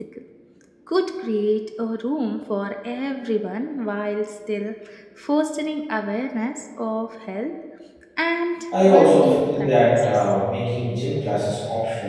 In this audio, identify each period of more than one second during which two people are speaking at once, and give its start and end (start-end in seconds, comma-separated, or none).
8.8-10.3